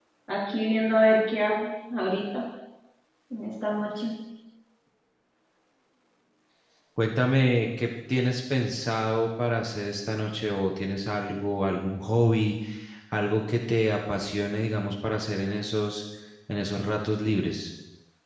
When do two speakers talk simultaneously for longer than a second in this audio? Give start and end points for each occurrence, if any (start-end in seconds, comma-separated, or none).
none